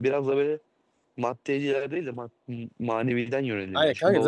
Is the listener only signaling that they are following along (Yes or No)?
No